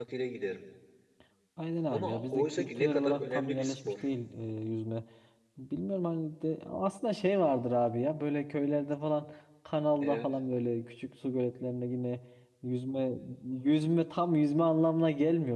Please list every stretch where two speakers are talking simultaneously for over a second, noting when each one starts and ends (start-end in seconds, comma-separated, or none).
1.9-4.0